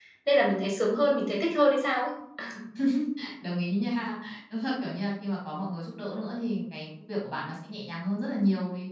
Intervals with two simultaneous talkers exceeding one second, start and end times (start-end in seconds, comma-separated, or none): none